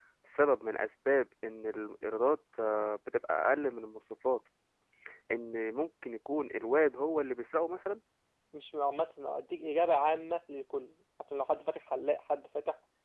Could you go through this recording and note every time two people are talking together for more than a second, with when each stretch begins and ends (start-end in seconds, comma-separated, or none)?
none